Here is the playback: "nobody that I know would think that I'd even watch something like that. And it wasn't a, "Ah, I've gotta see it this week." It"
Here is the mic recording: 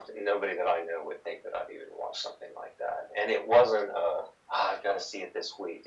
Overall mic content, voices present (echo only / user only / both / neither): echo only